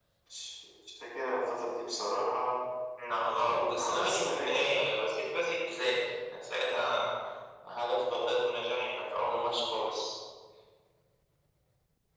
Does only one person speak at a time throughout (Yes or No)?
No